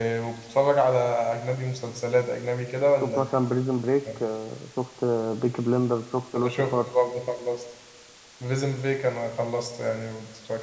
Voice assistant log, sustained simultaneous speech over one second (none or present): none